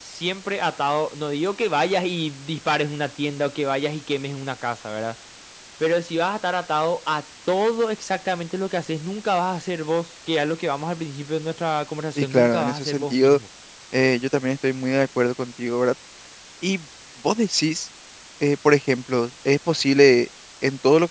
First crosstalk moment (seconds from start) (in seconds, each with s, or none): 12.2 s